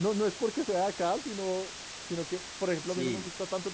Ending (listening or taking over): listening